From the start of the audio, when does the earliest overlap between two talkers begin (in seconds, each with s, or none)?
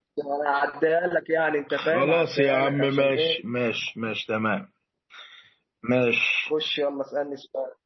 1.7 s